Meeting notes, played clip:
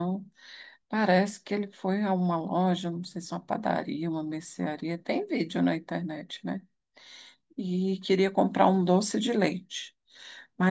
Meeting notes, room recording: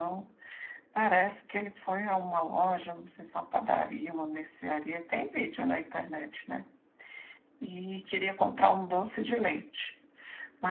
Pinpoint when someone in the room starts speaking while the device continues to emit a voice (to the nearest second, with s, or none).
none